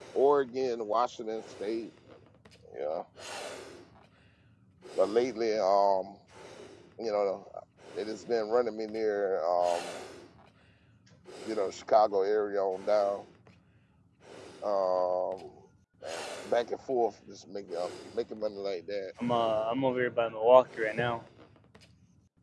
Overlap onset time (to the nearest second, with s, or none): none